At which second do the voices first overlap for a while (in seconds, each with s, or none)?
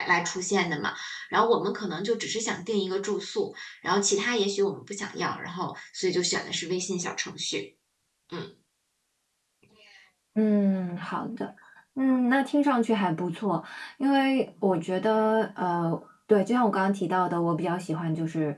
none